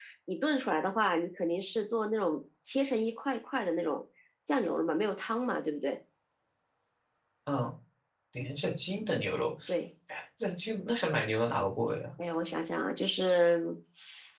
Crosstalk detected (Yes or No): No